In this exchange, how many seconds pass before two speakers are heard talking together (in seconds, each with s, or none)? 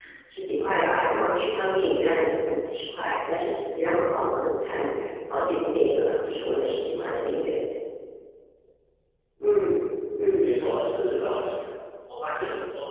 none